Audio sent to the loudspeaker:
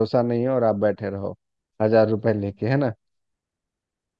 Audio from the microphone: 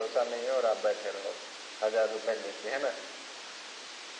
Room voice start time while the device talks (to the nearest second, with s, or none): none